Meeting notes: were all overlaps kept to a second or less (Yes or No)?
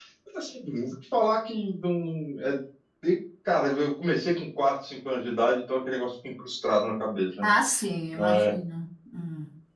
Yes